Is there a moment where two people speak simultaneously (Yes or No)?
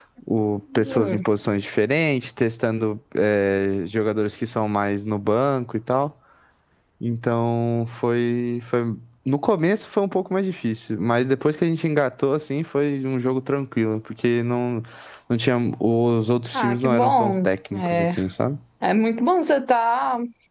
Yes